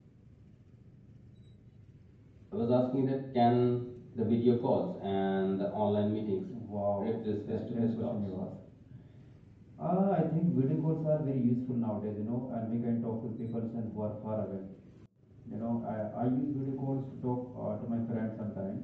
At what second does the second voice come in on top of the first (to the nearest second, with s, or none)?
7 s